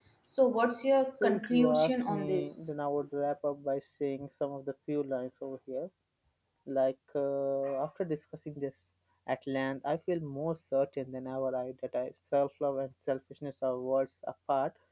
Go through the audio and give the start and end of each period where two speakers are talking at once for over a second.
1.2-2.5

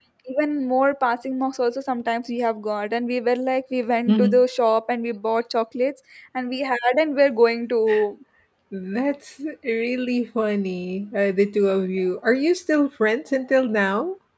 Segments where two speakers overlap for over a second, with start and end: none

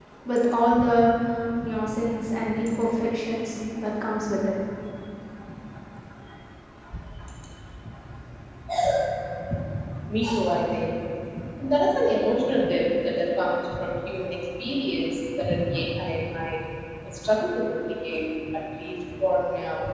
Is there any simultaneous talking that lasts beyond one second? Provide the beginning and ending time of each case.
none

